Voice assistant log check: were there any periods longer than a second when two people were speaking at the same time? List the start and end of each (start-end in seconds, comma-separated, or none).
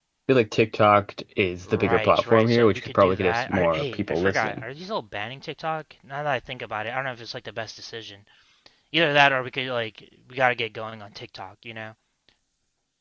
1.7-4.6